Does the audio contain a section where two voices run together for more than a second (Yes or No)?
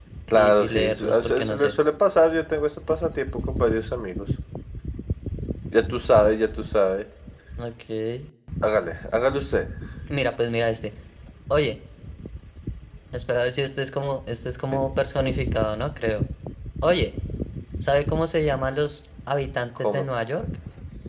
Yes